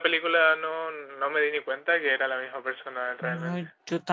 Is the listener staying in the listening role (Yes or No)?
No